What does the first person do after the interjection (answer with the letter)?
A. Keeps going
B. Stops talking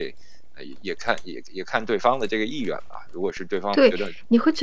B